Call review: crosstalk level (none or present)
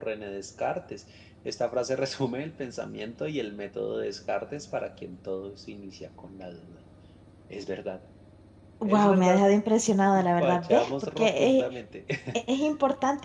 present